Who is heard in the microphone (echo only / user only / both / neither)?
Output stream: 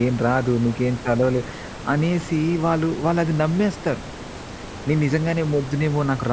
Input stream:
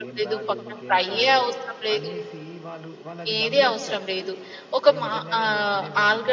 both